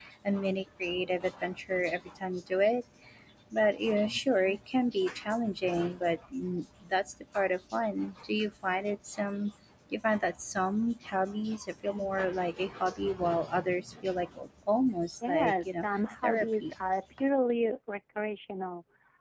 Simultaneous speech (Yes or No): Yes